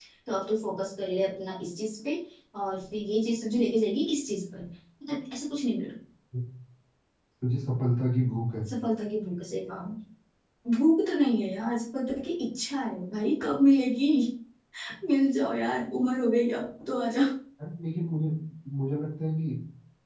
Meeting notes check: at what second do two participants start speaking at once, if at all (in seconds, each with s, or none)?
none